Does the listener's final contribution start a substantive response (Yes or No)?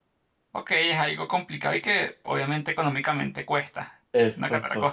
Yes